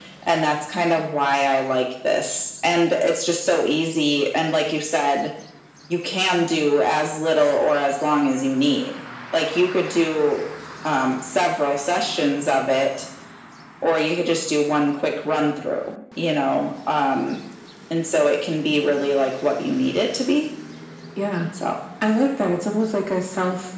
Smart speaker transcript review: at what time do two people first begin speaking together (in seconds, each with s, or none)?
none